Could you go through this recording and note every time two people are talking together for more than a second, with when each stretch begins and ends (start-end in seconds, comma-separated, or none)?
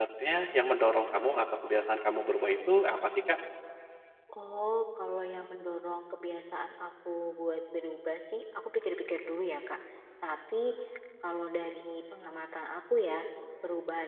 none